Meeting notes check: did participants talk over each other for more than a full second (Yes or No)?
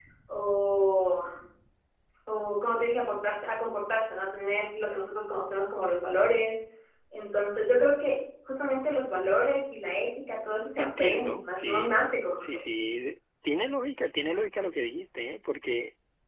Yes